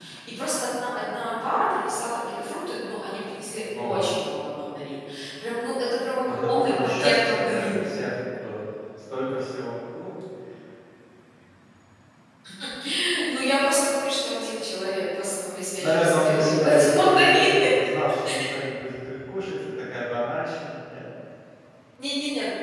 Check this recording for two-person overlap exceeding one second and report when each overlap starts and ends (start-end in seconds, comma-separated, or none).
6.3-8.0, 15.8-17.6